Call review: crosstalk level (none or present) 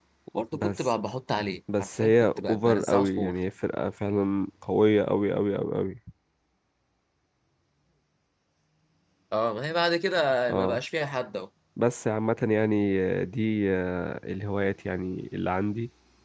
present